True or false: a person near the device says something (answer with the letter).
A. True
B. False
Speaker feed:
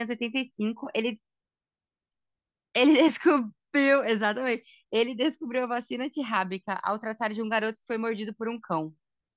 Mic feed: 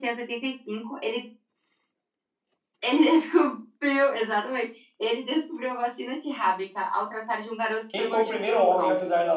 A